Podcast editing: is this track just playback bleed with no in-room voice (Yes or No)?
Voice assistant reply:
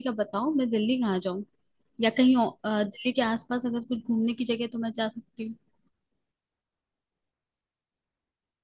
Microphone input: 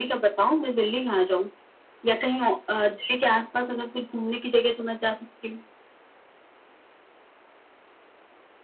Yes